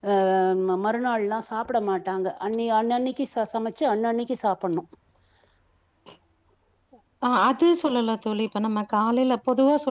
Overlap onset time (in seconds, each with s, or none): none